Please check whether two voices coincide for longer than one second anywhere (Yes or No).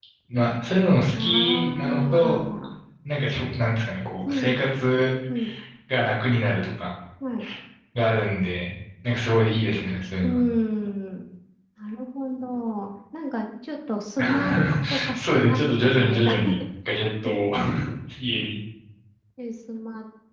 Yes